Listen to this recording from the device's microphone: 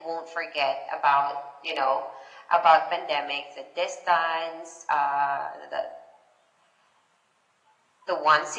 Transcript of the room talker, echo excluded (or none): none